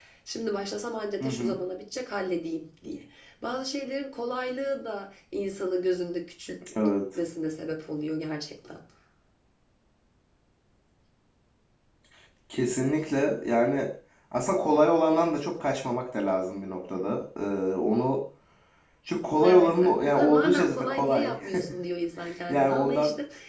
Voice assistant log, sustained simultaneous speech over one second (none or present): present